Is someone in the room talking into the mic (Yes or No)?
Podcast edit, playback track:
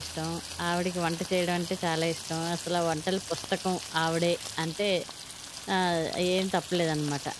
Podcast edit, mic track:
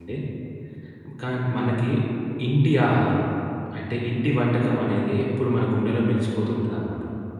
Yes